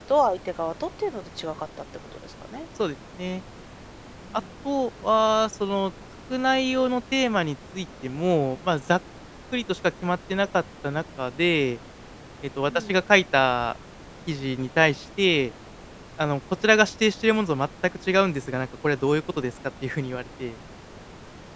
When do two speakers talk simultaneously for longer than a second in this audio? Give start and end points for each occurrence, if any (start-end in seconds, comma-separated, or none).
none